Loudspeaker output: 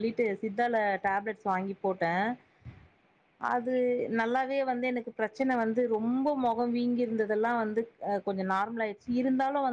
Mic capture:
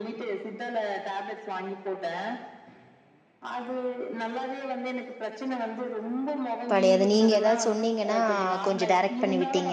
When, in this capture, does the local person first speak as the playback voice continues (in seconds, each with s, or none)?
6.7 s